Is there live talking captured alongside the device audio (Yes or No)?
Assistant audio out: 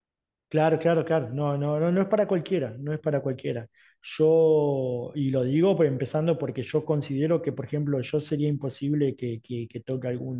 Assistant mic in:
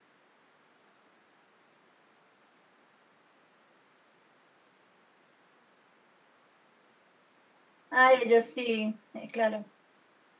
Yes